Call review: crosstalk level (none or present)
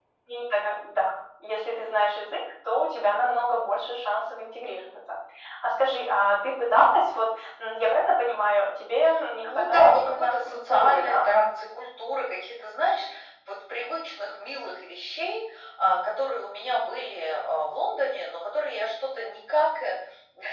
present